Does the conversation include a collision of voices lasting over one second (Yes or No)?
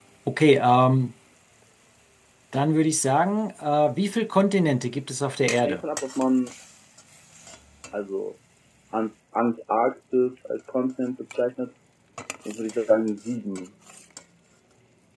No